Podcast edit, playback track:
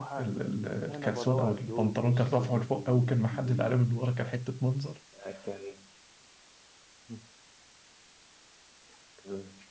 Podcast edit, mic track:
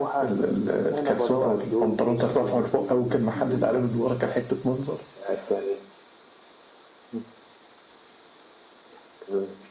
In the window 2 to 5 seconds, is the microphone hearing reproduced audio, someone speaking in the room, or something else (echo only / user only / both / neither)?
echo only